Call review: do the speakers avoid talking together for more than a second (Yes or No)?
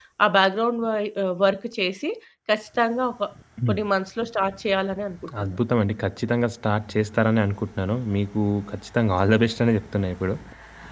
Yes